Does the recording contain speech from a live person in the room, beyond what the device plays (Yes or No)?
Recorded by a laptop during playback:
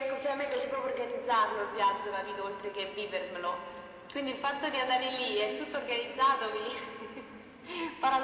No